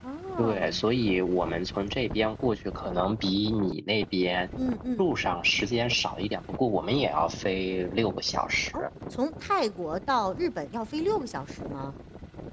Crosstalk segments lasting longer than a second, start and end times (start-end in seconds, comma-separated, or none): none